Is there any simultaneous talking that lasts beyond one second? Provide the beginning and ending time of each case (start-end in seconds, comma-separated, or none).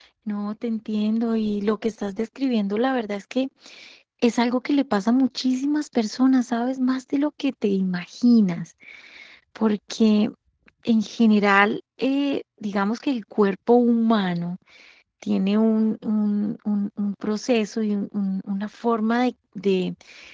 none